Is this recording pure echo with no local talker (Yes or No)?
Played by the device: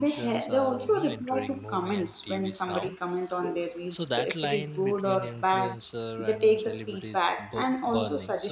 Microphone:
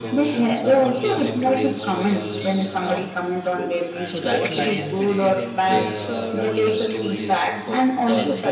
No